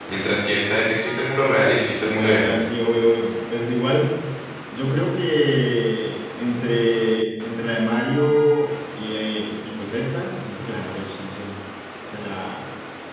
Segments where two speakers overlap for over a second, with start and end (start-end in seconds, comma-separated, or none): none